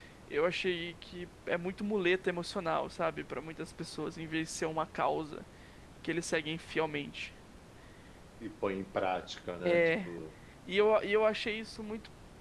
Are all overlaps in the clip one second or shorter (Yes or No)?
Yes